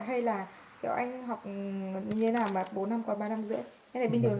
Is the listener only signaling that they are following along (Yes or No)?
No